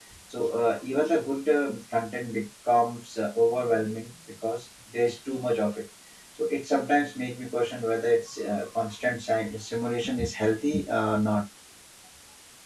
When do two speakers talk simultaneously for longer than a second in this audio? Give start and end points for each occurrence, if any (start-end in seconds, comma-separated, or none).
none